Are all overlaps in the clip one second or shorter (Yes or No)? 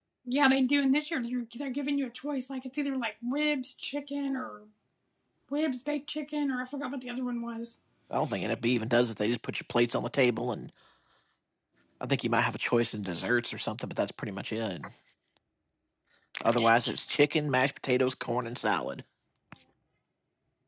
Yes